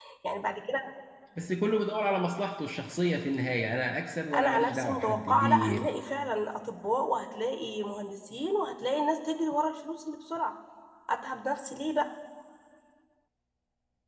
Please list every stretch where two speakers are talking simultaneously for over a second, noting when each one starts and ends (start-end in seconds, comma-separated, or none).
4.4-5.9